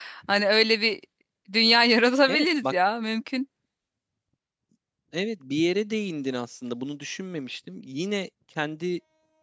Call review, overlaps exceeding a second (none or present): none